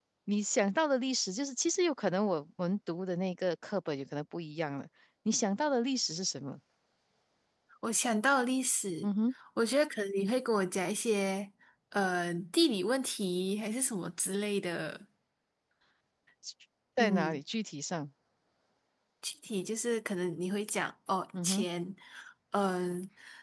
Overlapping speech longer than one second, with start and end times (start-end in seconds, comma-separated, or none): none